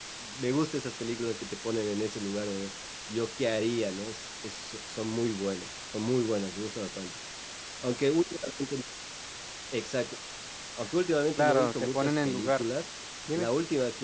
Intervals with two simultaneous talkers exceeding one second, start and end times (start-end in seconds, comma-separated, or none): 11.4-12.7